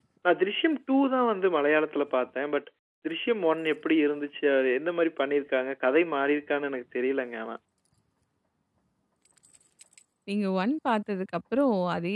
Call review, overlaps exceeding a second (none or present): none